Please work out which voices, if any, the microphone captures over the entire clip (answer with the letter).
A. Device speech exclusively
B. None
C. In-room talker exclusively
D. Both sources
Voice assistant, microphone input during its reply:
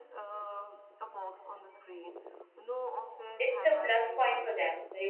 D